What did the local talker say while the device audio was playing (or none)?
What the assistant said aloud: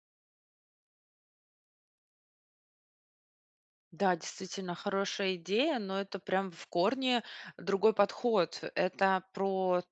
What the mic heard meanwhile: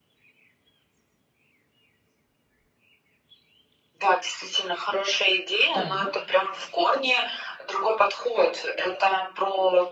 Так.